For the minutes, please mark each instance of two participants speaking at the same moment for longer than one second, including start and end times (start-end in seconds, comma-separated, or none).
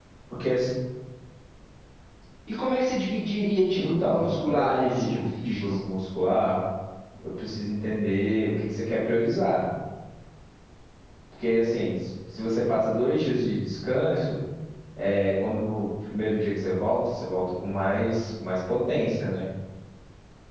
3.7-5.8